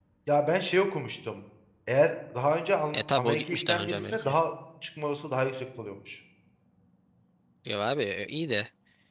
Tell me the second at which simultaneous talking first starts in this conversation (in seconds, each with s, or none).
2.9 s